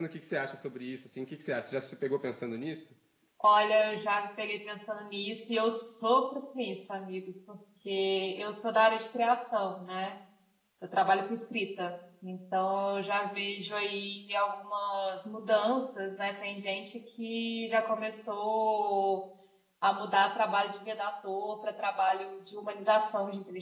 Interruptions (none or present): none